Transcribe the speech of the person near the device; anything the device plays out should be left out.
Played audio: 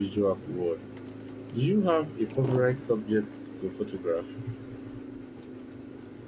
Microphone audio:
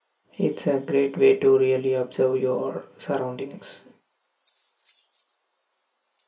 It's a great way to really observe your surroundings.

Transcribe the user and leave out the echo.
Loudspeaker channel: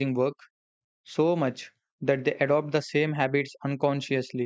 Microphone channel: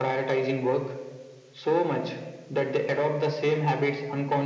none

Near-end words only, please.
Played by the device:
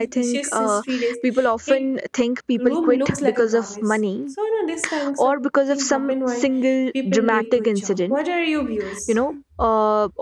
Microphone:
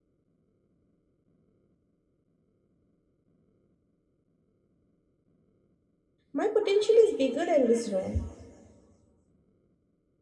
my potential is bigger than this role

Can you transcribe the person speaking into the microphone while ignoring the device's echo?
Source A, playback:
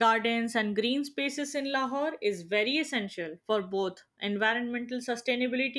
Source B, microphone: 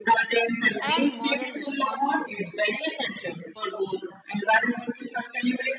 and moral responsibility.

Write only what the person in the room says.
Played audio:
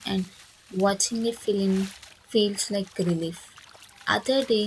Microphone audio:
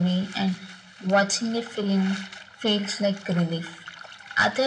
none

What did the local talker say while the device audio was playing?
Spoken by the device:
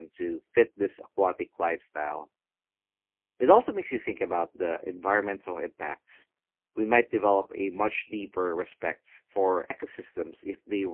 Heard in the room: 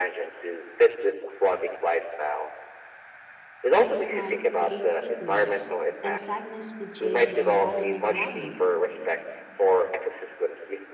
Anger might create heat waves, and sadness could change the environment around you.

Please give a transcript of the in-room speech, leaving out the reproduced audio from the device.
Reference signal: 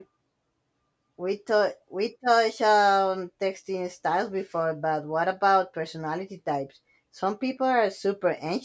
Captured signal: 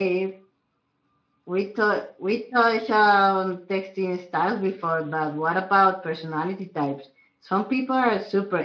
none

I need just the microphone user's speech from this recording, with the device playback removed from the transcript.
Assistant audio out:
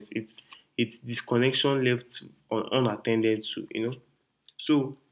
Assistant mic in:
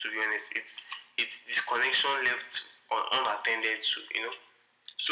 none

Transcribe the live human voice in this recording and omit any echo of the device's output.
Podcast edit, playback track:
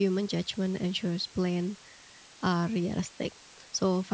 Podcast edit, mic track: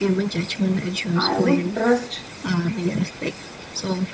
I would trust

